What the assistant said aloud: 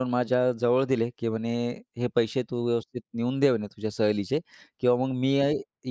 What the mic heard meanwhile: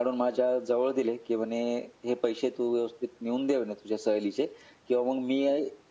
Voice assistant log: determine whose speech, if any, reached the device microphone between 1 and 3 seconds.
echo only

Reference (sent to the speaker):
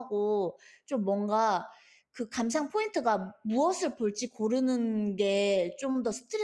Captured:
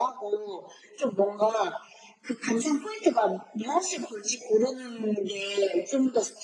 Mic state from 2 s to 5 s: echo only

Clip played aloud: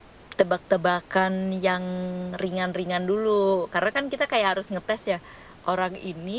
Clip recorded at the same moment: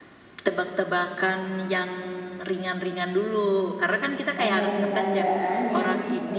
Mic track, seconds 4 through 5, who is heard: both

